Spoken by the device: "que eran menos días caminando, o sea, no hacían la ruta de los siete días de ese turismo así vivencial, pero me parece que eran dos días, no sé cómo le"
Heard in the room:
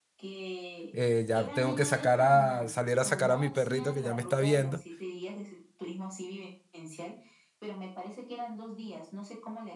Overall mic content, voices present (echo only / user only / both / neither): both